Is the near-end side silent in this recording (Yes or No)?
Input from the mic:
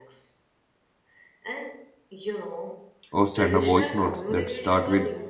No